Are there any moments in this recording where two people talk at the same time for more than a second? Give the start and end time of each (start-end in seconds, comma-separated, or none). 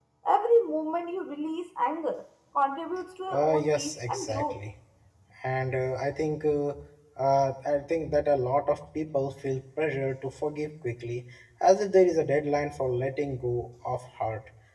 3.3-4.6